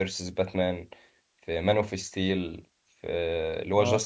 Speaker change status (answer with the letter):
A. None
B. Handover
A